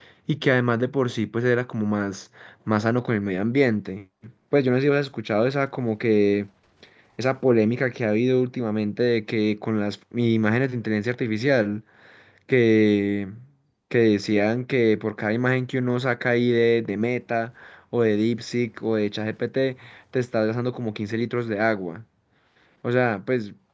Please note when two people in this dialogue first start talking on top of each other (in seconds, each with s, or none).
none